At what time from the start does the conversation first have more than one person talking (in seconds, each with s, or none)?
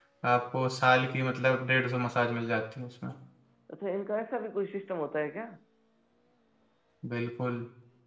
none